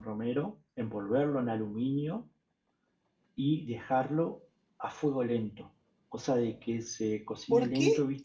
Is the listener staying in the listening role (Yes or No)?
No